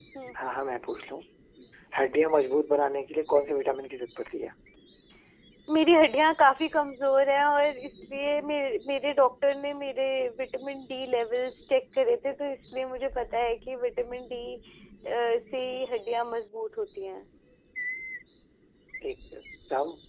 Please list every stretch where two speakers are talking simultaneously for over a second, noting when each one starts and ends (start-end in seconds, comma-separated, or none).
none